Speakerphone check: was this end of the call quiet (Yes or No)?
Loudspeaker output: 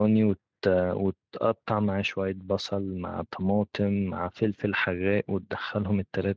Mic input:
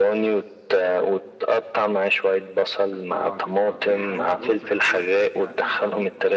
No